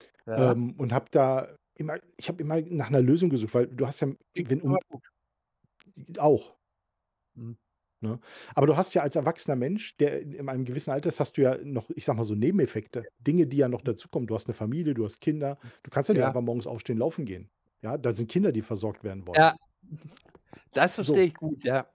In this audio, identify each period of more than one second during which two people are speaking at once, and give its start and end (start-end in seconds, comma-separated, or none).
none